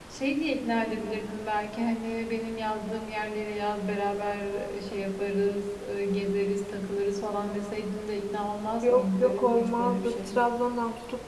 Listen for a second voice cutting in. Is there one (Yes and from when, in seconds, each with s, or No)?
Yes, from 8.8 s